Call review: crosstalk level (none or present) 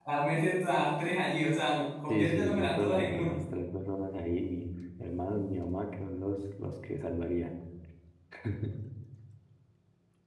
present